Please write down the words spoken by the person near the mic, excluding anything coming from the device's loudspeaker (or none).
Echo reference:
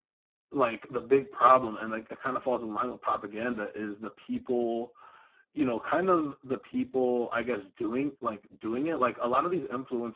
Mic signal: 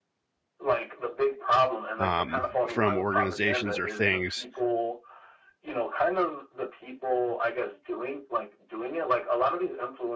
um, from organizations or things